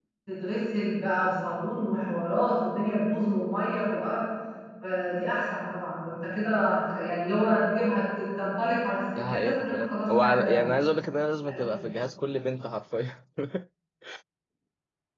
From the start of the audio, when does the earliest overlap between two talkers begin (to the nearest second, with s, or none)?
9 s